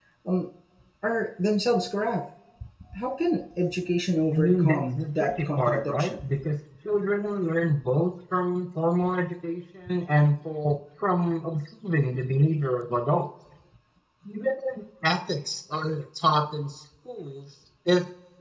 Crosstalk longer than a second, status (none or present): present